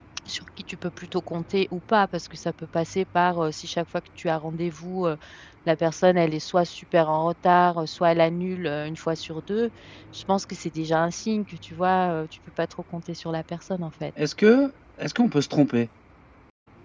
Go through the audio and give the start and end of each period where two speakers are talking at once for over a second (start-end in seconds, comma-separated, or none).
none